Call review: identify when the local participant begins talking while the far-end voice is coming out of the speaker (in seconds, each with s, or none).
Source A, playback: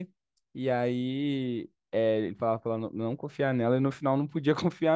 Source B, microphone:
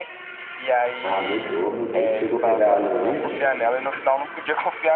1.0 s